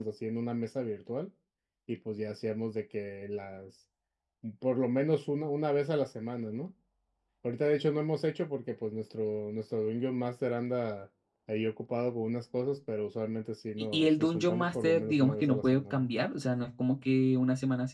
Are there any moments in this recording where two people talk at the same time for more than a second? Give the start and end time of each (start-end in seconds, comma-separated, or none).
13.9-16.1